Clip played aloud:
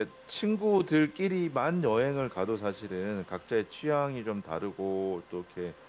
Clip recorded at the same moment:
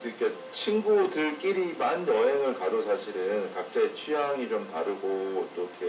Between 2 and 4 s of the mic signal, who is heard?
echo only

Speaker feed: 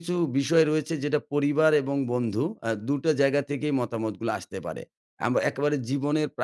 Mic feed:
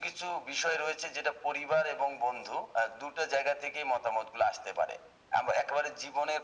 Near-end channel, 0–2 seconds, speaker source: echo only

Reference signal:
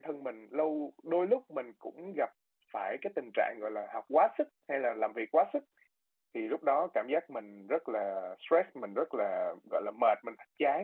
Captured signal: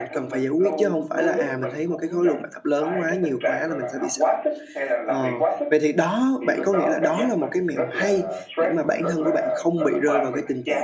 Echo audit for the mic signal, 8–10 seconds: both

